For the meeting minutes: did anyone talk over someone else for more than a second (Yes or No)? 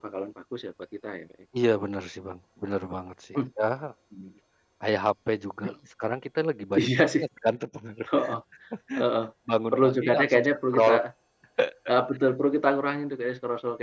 Yes